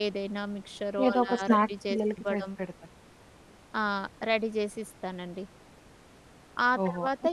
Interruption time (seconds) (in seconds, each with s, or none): 1.1 s